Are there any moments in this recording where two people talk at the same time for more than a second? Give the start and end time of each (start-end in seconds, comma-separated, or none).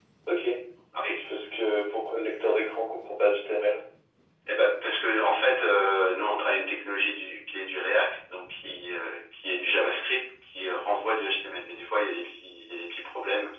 none